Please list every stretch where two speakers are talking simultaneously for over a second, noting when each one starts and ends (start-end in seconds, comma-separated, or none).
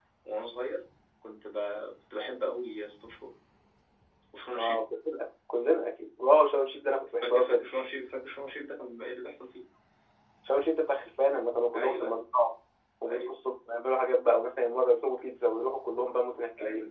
none